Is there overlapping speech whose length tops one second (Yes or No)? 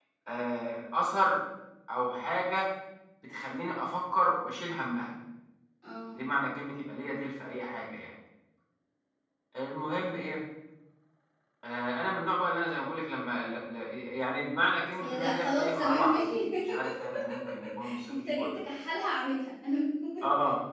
Yes